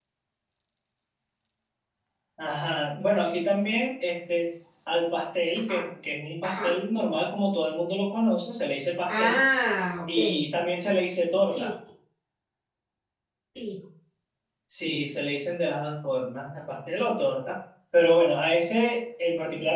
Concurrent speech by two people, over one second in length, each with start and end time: none

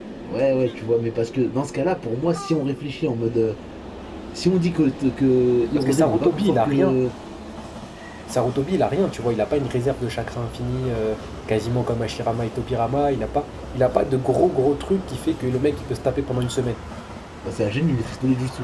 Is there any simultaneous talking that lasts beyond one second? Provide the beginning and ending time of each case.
5.8-7.0

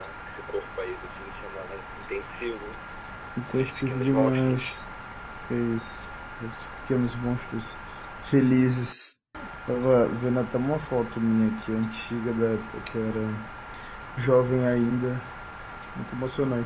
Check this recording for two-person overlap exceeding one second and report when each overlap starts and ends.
3.5-4.8

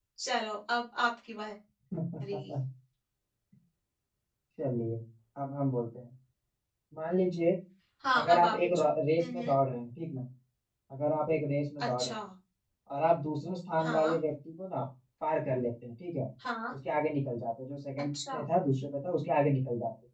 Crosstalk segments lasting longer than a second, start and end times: 8.2-9.5

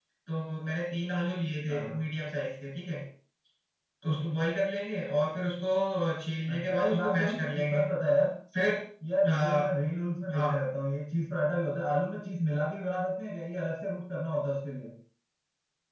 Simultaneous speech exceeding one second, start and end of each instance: 6.5-7.8

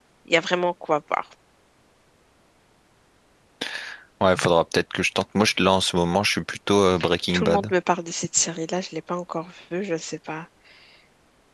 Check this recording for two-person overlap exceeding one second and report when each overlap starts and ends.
none

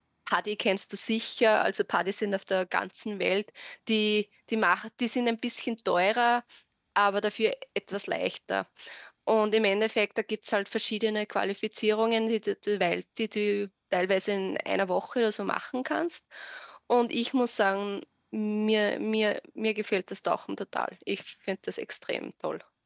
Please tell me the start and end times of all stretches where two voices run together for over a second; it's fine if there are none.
none

